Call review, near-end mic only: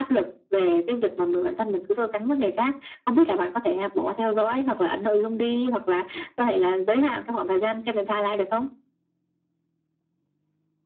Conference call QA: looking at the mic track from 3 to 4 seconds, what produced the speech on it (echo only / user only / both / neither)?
echo only